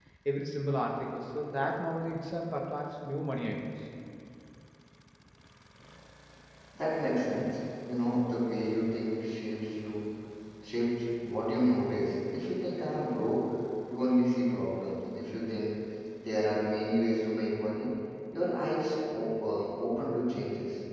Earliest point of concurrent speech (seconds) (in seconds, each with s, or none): none